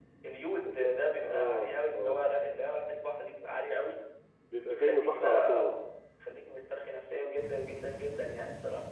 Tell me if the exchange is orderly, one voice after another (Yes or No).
No